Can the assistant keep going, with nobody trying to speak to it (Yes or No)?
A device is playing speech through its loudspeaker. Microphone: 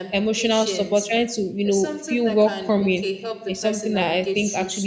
No